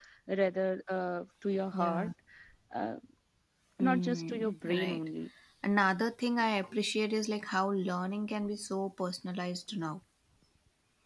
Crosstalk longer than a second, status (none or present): present